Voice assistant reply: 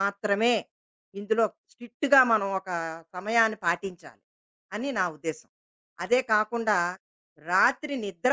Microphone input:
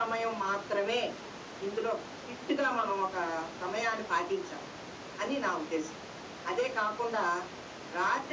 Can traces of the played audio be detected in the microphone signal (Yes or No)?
Yes